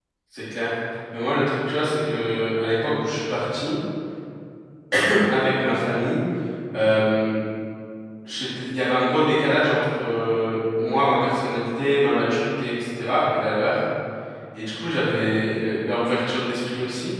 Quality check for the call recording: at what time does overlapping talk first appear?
none

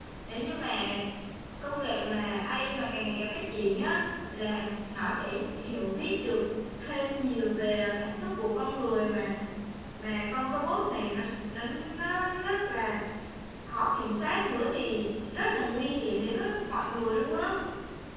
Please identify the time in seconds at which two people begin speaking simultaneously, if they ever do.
none

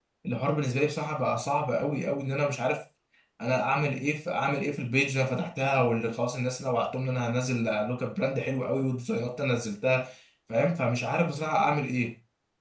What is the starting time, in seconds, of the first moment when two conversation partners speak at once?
none

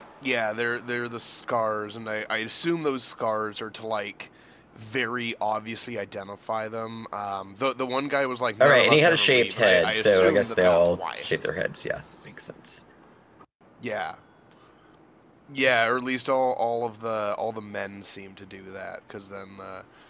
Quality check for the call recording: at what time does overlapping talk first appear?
8.6 s

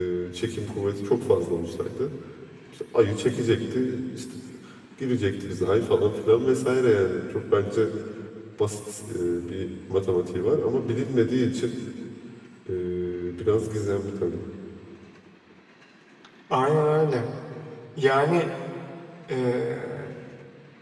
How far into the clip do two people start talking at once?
none

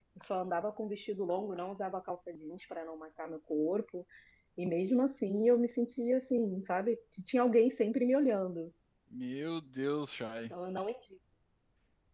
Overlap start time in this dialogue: none

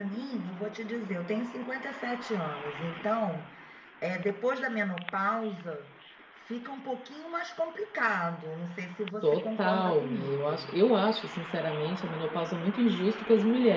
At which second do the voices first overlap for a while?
9.2 s

